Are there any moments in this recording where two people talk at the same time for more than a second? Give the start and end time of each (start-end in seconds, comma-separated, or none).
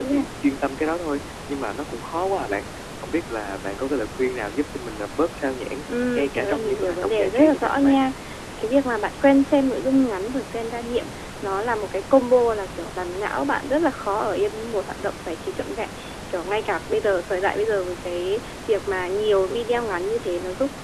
6.2-8.0